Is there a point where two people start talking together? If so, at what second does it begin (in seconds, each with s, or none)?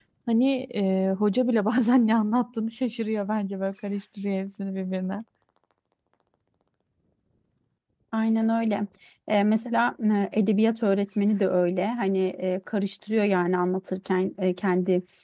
none